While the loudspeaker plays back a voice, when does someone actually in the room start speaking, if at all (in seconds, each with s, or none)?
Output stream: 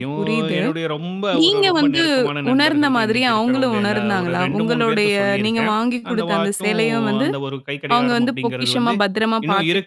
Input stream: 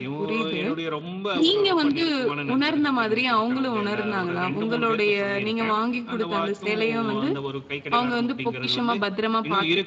none